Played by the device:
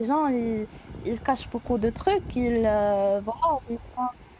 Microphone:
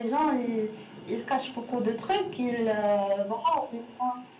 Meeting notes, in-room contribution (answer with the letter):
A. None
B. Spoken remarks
A